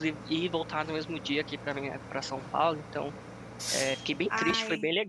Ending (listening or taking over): listening